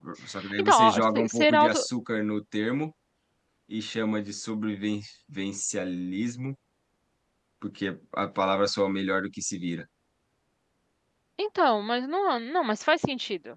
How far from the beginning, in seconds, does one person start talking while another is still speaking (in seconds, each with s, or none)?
0.6 s